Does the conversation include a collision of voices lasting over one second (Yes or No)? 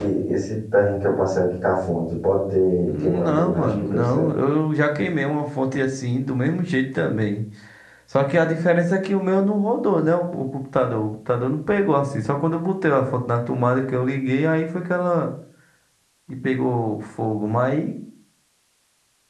Yes